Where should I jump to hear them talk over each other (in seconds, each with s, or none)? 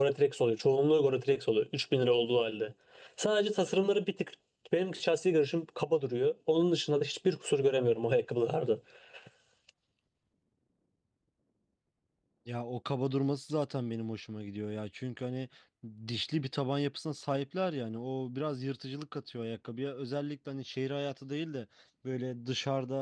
none